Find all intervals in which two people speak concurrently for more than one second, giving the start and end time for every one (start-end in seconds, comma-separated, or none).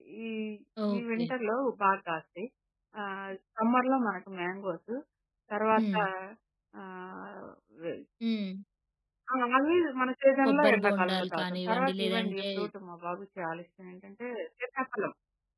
10.4-12.4